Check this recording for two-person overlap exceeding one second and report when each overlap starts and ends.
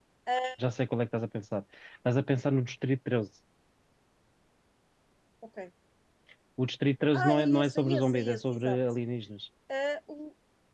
7.1-8.8

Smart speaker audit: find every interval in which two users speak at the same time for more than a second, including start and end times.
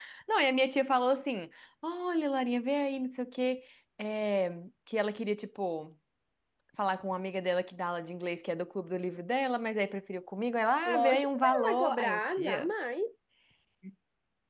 10.9-12.7

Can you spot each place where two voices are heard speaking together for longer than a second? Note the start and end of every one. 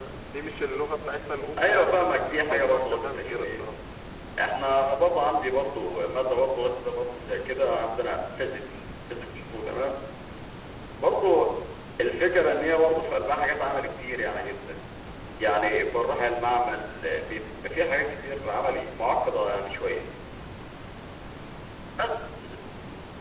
1.6-3.6

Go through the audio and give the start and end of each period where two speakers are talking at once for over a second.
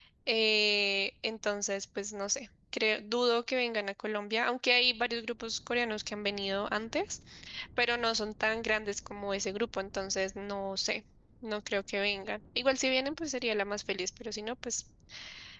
none

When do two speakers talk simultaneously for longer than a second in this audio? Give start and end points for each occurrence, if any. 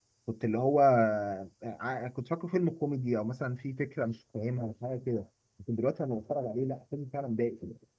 none

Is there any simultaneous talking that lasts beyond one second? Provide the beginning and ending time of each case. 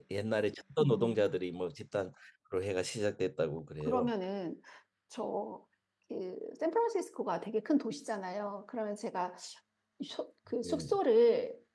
none

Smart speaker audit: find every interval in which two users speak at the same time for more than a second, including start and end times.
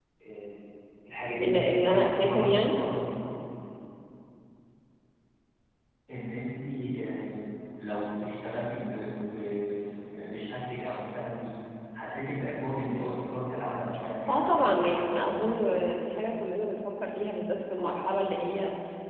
1.4-2.8, 14.3-15.6

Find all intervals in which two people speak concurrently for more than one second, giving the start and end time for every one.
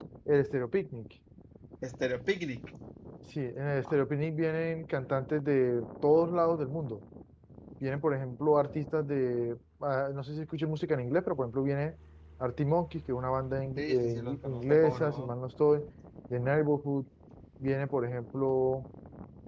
13.8-15.3

